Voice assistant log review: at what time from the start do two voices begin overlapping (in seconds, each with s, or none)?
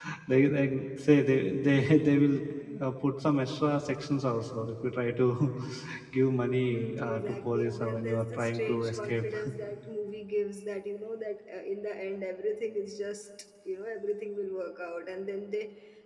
6.7 s